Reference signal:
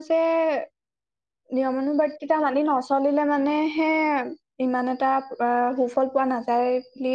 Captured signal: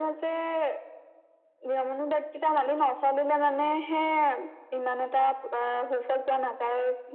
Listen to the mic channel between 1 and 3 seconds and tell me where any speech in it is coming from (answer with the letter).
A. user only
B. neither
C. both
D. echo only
D